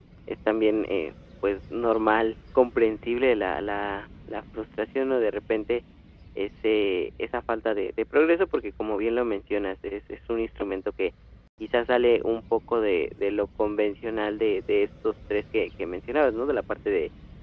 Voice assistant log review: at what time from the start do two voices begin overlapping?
none

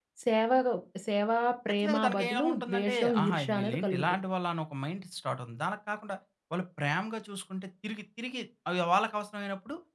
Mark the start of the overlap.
1.7 s

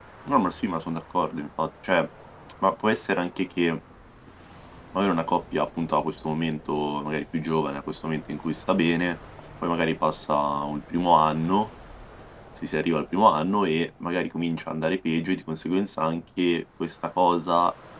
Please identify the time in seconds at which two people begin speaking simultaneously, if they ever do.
none

